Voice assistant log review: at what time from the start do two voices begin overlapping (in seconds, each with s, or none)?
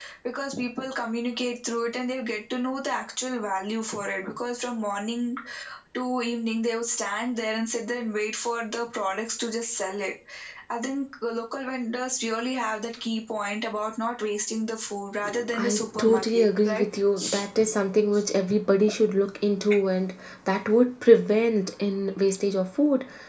15.5 s